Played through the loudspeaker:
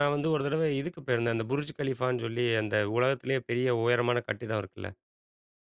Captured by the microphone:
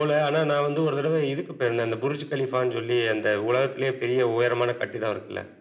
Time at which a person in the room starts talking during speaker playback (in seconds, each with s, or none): none